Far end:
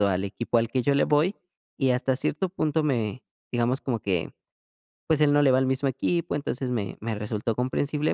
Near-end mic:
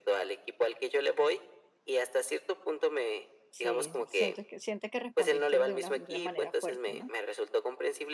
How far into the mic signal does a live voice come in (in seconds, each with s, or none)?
3.5 s